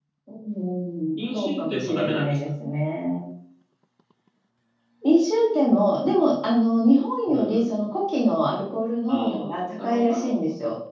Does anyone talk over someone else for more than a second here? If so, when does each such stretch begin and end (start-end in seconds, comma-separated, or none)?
1.2-2.4, 9.1-10.3